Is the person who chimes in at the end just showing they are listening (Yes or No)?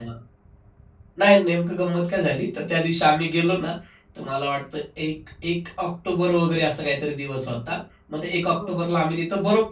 Yes